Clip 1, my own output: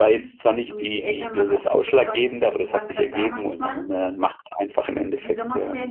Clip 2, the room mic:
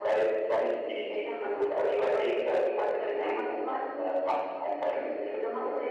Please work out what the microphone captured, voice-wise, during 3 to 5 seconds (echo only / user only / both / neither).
echo only